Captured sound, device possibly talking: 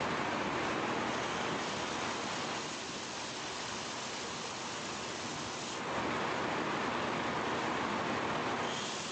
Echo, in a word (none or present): none